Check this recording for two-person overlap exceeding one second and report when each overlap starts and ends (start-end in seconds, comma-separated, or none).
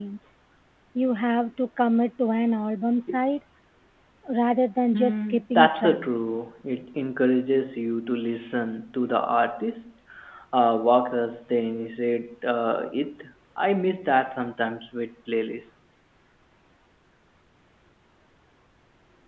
4.9-6.3